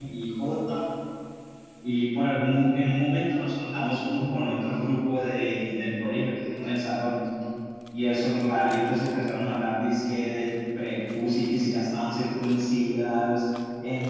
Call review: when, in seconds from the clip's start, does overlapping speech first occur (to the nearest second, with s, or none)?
none